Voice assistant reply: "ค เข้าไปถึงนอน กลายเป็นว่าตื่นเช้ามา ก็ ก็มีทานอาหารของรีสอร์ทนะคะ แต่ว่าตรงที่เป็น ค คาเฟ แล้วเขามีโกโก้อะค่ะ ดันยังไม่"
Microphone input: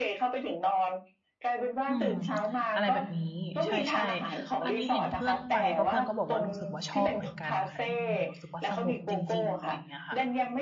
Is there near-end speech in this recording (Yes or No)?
Yes